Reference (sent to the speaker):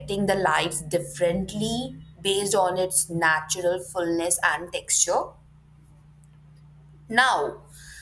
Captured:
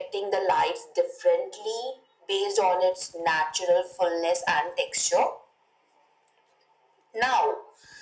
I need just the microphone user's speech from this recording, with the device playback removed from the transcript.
none

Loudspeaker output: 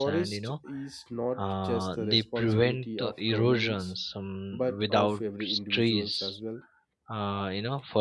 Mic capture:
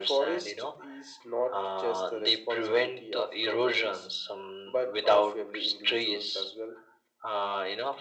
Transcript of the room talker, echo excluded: none

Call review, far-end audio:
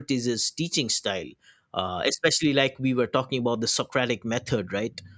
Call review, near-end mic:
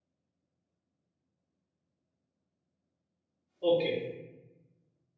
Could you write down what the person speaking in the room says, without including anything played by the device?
Okay.

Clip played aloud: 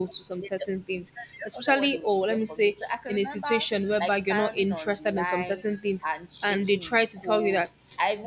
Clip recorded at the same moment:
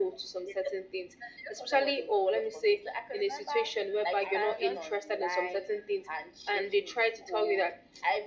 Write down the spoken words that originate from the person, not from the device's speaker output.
I would just

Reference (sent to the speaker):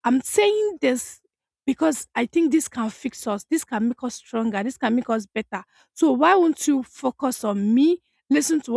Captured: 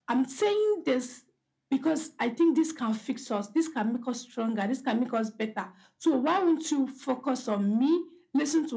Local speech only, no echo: none

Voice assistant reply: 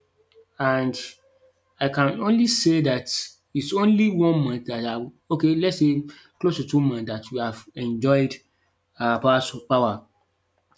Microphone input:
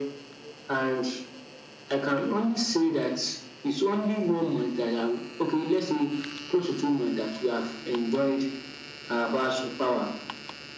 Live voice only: none

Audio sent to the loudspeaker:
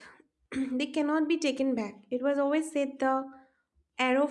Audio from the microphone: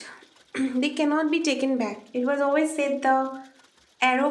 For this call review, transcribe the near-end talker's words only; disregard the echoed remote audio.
none

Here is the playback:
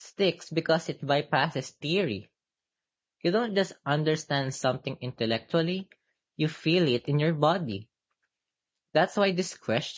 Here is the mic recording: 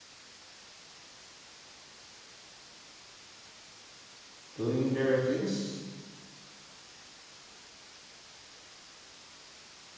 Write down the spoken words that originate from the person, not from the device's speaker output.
doing their routines,

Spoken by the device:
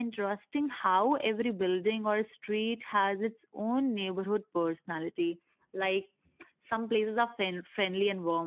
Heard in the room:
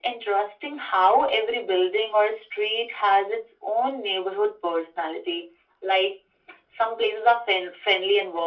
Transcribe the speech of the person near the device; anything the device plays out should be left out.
none

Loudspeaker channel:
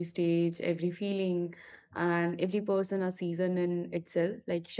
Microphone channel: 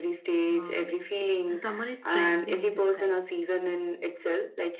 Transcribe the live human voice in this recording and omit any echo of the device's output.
know, um, summer is strength in disguise.

